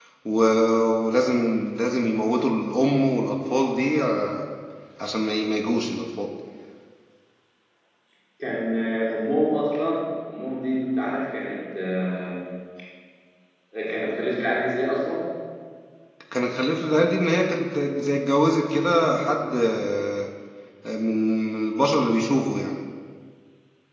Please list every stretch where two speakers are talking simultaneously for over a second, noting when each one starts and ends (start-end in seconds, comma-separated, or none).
none